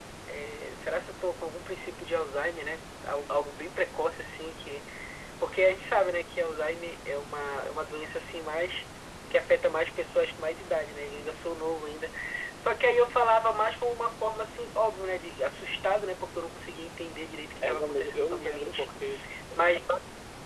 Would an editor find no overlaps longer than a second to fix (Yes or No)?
No